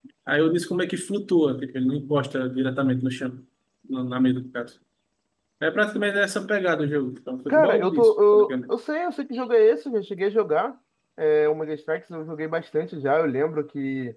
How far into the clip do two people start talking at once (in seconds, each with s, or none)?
7.5 s